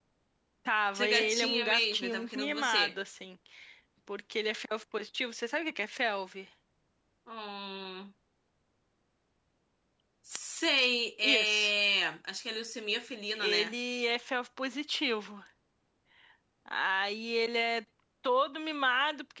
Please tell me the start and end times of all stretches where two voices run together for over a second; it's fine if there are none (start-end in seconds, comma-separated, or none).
0.9-2.9